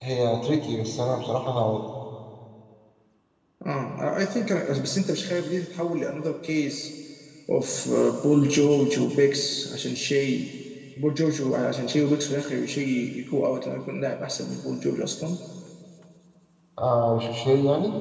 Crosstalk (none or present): none